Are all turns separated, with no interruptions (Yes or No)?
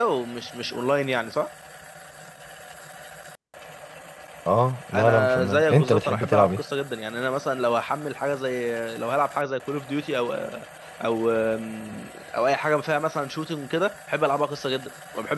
No